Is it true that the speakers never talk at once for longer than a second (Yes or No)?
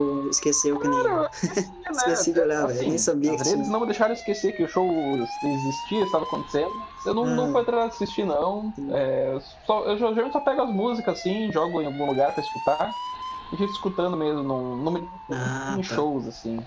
No